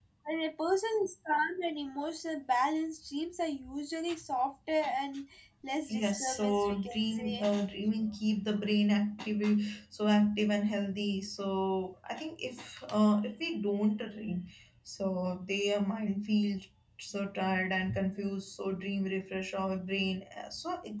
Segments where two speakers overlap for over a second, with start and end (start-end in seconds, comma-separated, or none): 5.9-7.4